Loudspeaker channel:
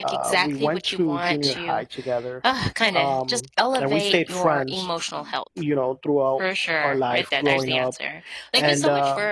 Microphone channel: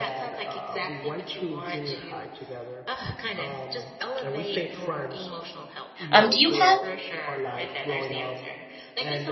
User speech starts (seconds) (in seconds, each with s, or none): 6.1 s